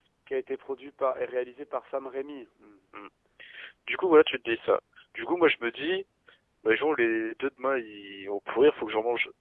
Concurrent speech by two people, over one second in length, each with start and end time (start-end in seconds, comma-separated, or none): none